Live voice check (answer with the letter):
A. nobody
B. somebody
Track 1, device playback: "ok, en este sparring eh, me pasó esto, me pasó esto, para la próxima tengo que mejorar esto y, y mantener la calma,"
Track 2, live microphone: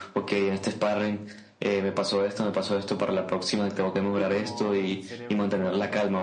B